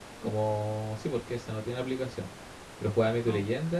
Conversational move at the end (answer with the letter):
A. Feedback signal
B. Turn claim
A